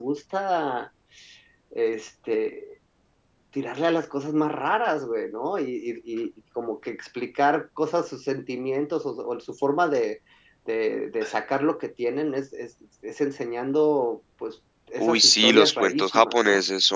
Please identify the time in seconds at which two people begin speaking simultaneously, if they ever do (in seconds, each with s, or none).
15.0 s